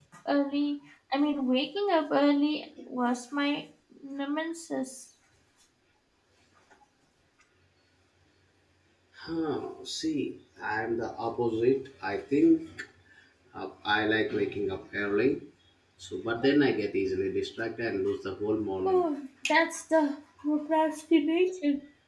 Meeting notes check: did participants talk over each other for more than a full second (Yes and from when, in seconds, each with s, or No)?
No